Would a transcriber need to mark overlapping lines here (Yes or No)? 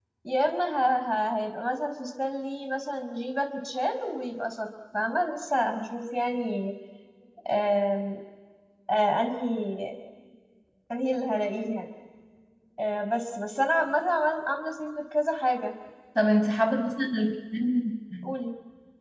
No